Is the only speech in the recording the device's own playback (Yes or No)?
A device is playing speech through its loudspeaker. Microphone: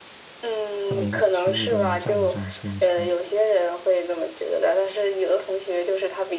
No